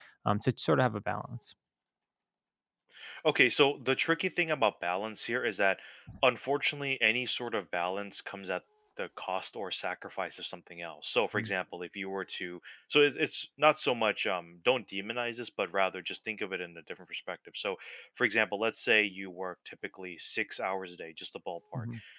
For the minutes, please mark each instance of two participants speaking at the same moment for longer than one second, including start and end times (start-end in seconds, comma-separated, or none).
none